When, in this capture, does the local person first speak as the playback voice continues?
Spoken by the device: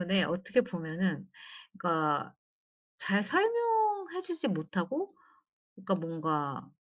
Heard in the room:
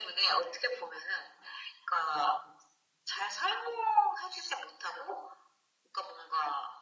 none

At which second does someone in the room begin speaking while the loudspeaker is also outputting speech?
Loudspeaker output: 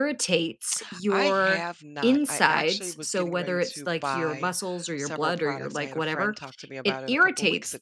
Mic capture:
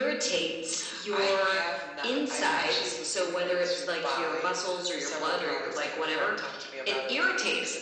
none

